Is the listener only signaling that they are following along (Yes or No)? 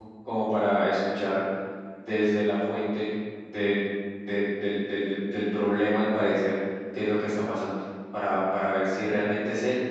Yes